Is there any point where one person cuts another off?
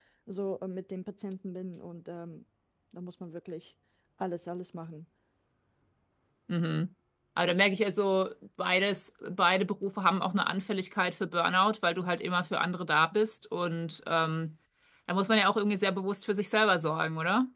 No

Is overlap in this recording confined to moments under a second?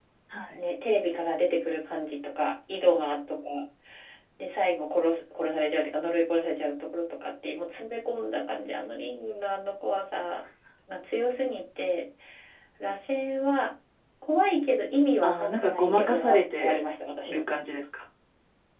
No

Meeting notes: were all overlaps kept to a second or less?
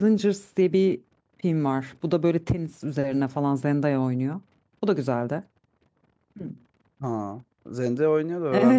Yes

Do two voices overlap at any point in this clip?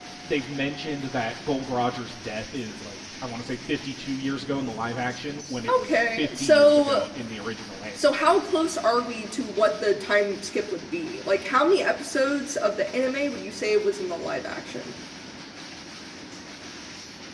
Yes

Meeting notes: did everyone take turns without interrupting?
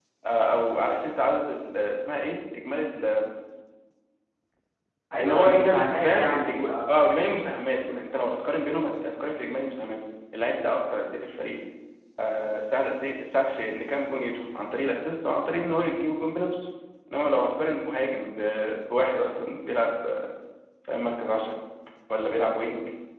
No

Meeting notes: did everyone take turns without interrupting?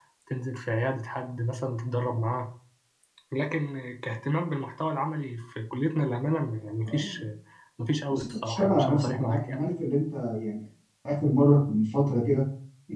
No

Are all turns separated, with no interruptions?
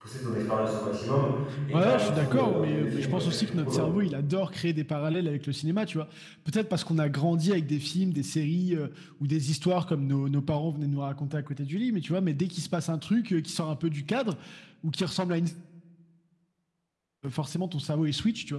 No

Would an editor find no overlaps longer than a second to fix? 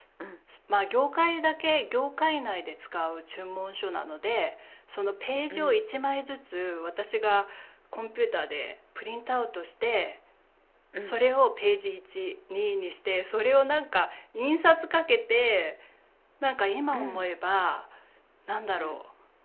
Yes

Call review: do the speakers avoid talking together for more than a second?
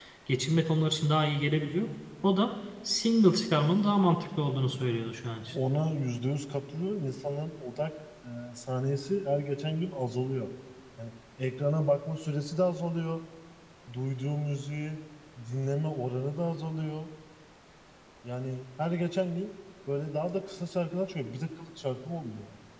Yes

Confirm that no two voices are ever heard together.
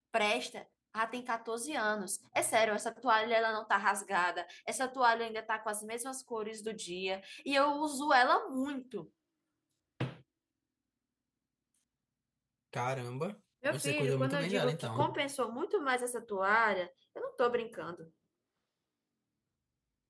No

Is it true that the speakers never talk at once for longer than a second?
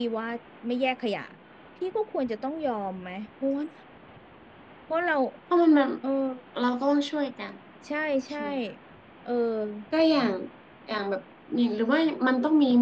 Yes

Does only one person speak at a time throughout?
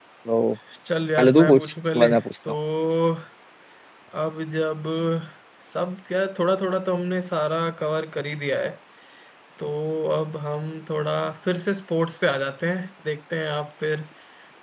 No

